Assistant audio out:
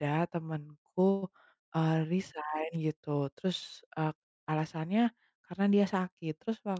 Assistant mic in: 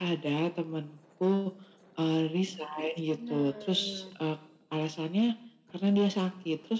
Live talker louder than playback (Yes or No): No